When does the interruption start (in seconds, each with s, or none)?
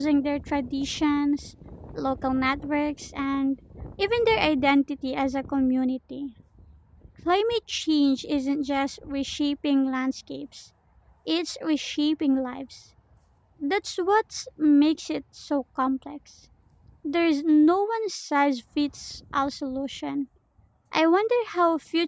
none